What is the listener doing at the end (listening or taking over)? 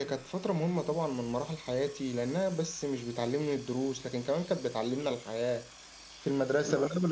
listening